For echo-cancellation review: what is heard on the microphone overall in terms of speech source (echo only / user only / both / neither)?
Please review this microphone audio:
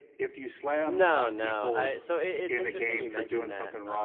both